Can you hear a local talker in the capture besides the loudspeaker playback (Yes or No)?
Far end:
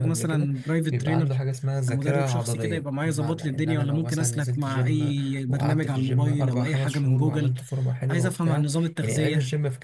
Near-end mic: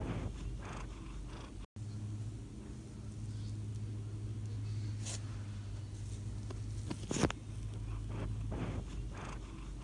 No